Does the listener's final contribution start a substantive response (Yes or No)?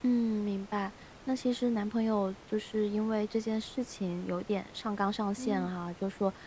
No